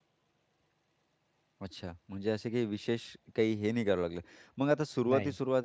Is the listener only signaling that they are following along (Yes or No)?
Yes